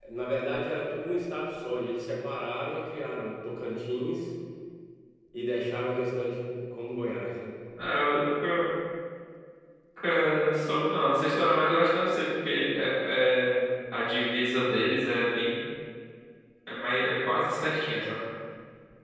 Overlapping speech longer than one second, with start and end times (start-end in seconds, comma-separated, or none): none